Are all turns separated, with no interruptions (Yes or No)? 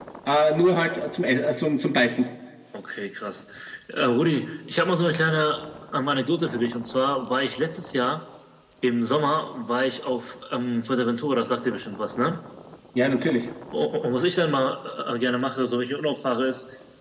Yes